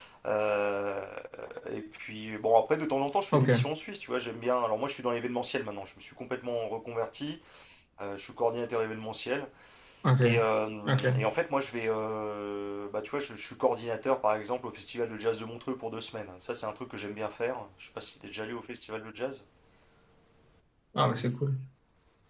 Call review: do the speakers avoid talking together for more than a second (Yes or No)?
Yes